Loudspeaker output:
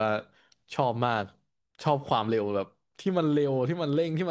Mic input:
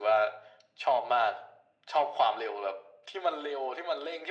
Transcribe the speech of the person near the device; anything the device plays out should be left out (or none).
none